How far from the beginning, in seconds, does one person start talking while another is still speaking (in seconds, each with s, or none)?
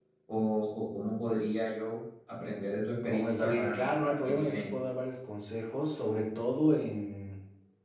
3.0 s